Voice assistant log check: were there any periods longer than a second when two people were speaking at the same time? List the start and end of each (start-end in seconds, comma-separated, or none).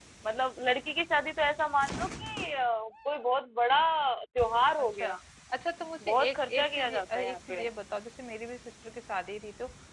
6.1-7.6